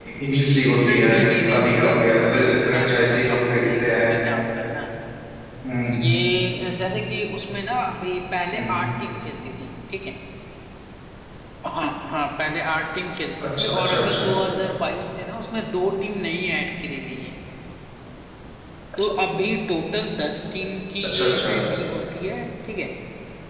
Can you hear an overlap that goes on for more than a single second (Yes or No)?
Yes